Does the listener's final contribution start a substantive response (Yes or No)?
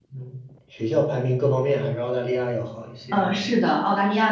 Yes